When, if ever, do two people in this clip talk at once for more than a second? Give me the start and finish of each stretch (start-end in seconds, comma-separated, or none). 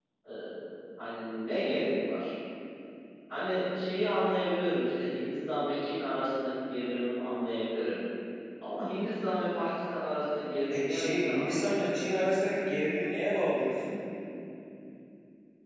10.7-12.0